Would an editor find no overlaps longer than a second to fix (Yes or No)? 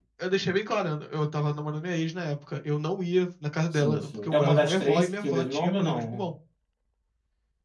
No